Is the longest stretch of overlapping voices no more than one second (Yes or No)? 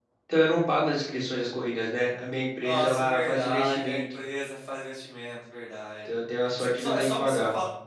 No